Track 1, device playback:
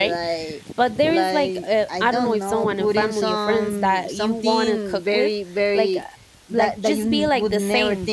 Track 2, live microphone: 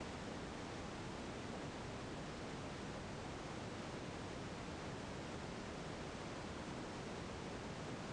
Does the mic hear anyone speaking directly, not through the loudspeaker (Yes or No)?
No